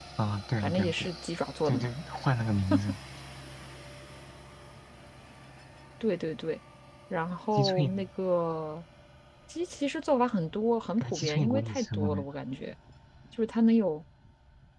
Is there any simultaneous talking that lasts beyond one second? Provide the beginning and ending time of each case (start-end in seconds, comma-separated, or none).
11.0-12.2